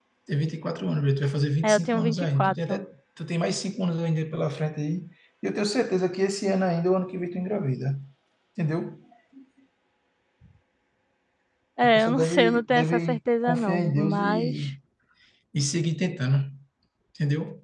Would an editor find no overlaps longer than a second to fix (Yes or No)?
No